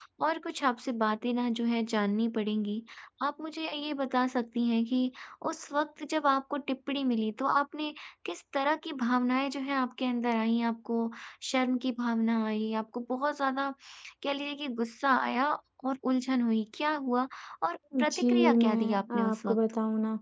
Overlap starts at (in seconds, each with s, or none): 18.1 s